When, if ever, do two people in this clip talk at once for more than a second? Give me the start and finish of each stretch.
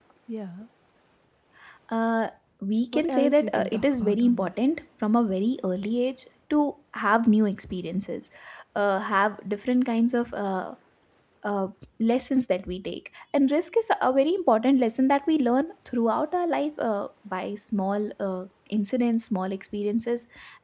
2.9-4.5

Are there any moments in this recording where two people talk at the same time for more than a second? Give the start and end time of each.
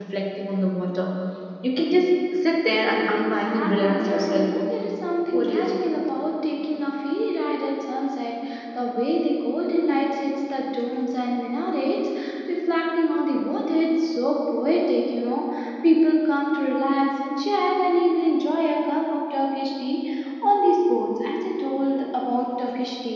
3.2-4.5

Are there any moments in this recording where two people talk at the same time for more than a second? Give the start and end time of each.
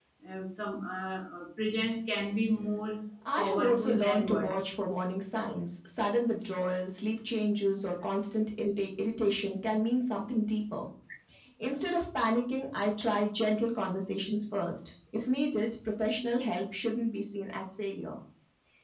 3.4-4.7

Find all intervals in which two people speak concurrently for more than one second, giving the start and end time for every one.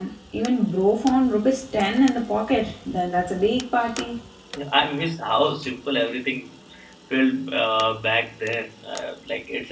none

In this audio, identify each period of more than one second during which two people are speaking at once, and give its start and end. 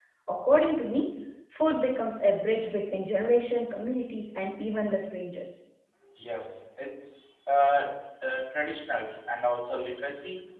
none

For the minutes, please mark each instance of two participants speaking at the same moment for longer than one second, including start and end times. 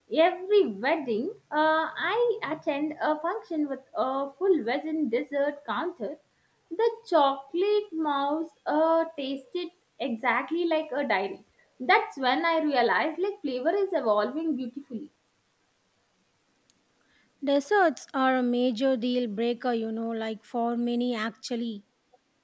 none

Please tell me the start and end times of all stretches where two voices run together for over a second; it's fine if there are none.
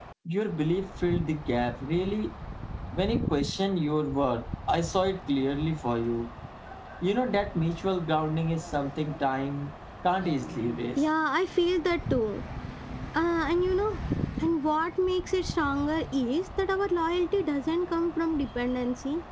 none

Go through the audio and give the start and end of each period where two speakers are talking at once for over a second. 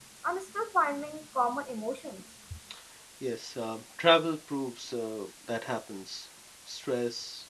none

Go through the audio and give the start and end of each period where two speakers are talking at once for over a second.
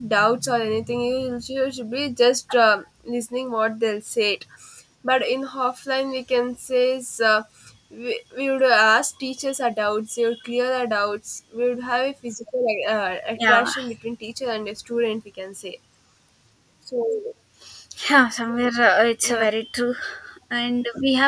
none

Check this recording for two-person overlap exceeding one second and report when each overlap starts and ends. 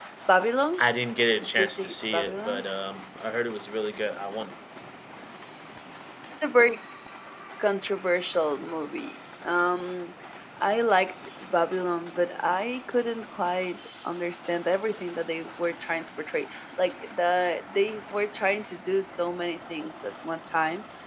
1.4-2.6

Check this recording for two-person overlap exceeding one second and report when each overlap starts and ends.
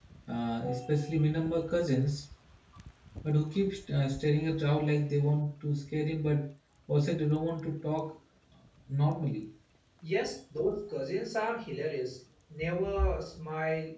none

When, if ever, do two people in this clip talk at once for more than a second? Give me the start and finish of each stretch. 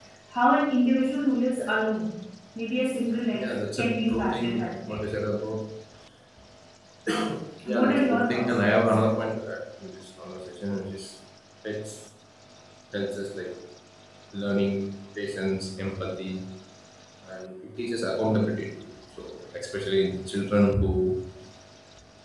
3.3-5.0, 7.6-9.0

